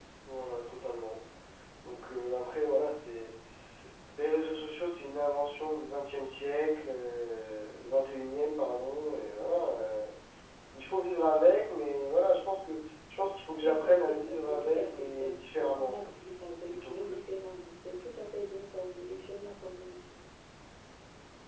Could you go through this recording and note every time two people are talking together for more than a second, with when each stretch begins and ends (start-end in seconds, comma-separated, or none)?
13.6-16.1